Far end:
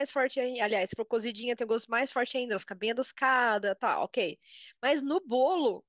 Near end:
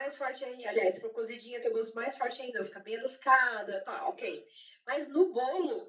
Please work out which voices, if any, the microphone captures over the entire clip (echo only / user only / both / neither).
echo only